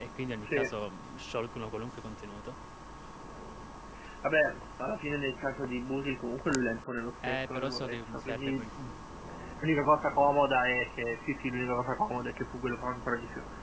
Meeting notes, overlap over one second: present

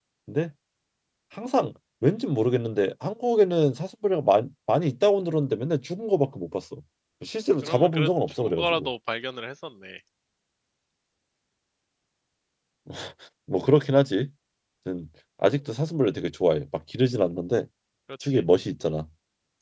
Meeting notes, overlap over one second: present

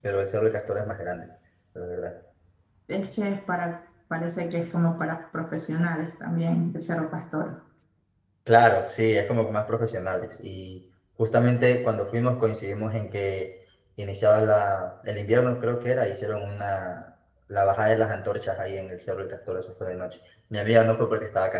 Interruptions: none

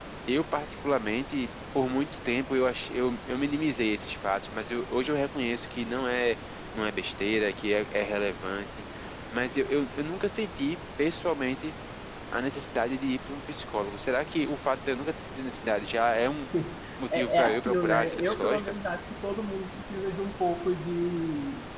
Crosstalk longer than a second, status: present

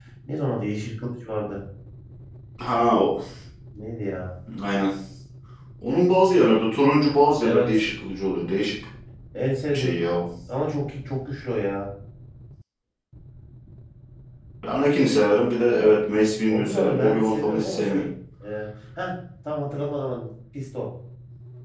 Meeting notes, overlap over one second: present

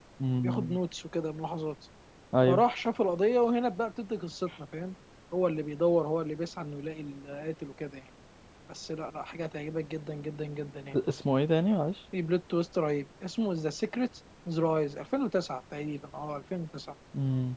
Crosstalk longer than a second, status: none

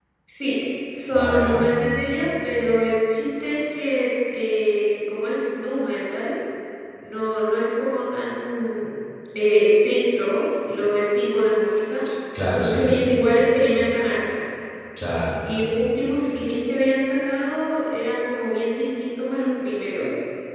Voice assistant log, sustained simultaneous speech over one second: none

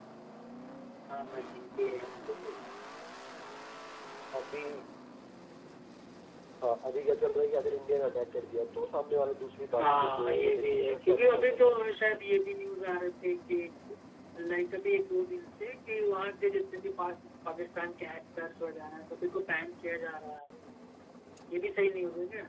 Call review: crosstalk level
present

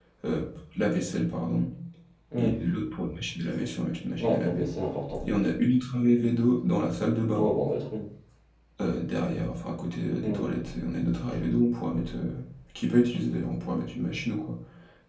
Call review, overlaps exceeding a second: none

